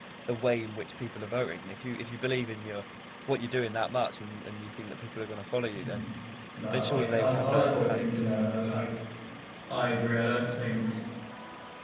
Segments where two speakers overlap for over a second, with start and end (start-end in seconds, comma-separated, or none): 6.7-8.1